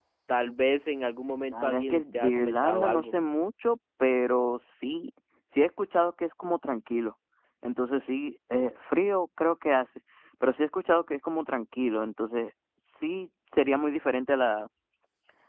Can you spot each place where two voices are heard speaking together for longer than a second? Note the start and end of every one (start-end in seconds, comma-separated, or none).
1.5-3.1